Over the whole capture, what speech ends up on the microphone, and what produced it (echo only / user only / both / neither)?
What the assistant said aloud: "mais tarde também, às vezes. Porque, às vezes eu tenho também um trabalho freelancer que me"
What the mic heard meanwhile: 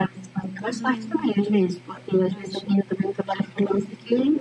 both